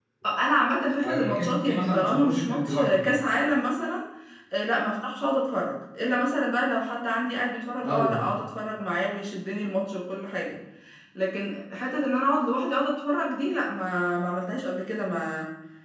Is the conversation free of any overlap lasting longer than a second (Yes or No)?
No